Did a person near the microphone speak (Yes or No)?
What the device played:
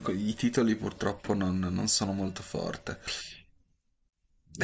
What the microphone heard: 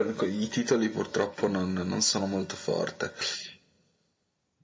No